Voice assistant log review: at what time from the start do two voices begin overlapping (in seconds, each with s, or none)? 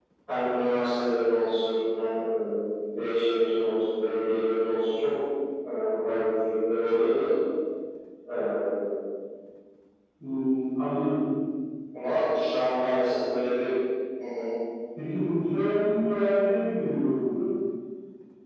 none